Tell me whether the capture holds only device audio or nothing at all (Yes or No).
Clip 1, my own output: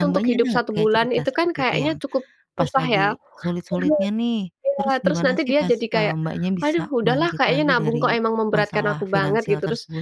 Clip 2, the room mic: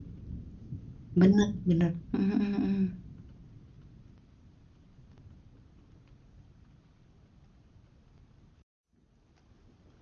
No